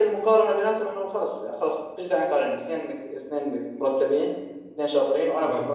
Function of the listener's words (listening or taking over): listening